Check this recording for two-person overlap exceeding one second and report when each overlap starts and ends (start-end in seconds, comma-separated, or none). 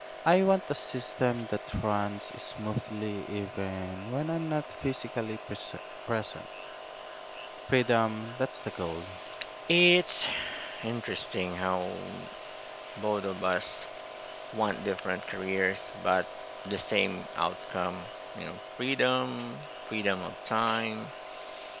none